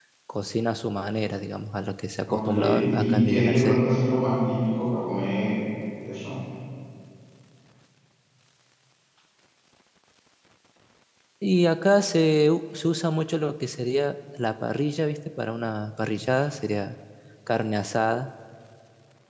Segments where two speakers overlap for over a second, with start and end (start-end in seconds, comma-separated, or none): 2.3-3.8